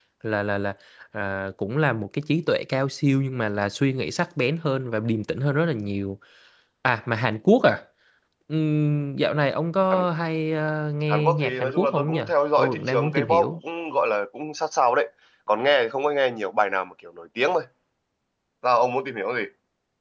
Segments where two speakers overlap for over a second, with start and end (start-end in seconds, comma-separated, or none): 11.1-13.6